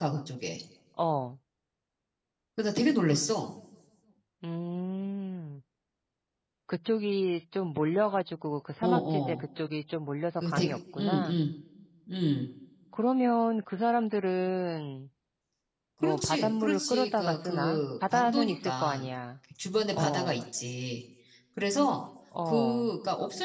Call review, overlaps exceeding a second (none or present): present